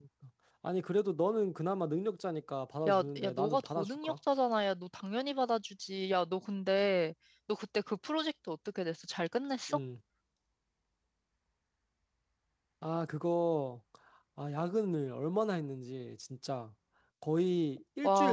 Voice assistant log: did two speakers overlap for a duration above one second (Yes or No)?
Yes